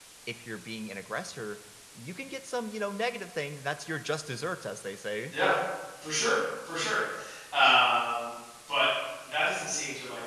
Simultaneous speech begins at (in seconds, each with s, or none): none